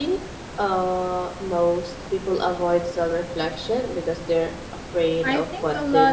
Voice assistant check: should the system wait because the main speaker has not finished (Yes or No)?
No